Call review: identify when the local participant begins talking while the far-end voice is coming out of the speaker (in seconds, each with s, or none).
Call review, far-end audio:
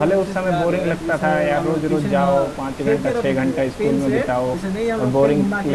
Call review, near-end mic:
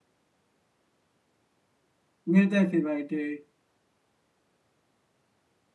2.3 s